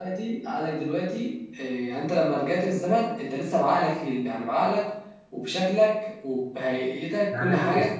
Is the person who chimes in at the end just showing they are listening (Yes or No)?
No